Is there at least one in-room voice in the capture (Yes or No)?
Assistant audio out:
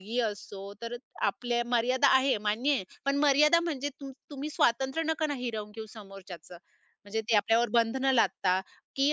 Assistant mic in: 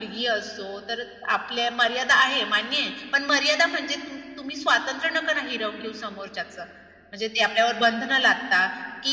No